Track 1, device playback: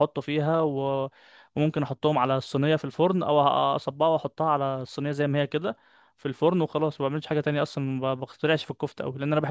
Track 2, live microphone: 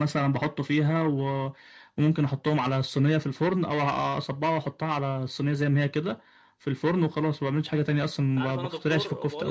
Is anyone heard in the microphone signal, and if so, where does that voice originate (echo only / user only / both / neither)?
both